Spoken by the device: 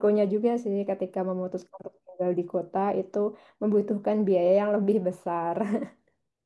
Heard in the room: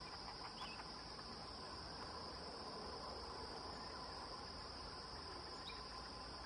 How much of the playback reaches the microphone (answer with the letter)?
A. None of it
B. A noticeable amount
A